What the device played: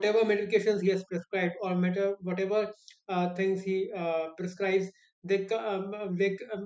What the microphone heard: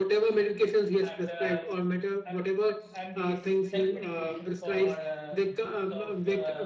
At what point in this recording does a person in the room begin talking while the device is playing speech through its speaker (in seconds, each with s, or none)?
1.0 s